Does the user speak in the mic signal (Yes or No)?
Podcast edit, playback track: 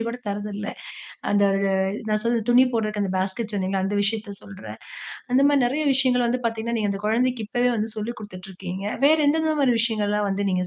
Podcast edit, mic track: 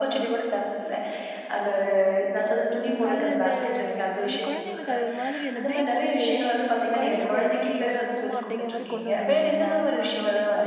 Yes